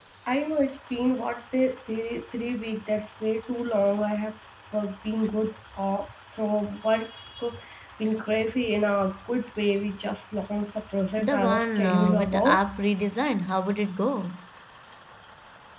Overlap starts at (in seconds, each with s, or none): 11.2 s